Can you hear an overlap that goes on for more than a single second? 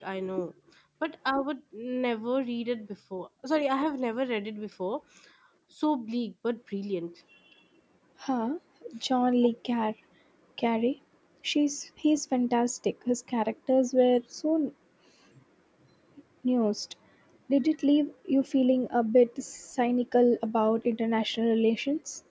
No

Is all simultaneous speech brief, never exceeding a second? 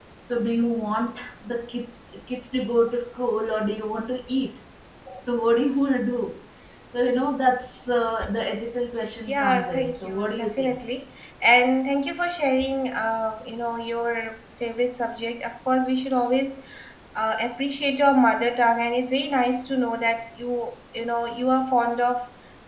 No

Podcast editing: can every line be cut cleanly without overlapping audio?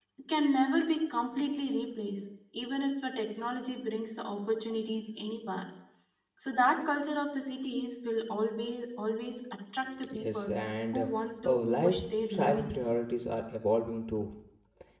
No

